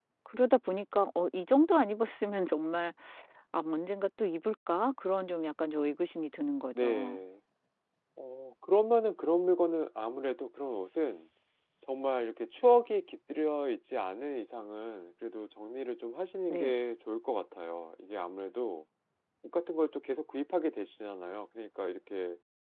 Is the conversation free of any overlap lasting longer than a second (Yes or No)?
Yes